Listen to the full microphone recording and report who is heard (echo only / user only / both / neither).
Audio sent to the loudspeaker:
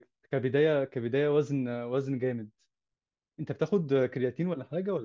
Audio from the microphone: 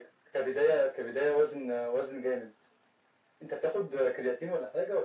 echo only